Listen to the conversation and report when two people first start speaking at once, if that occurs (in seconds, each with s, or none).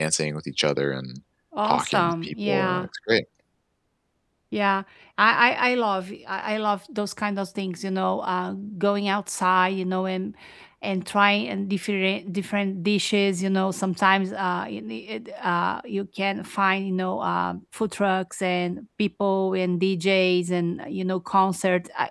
1.6 s